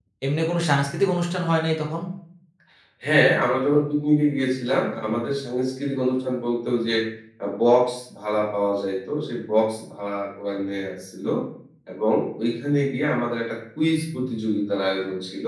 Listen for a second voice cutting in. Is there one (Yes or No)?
No